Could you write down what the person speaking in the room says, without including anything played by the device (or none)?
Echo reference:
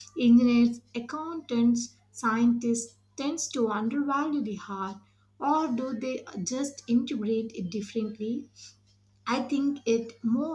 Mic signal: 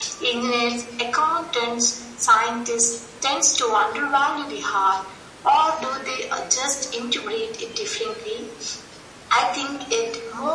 none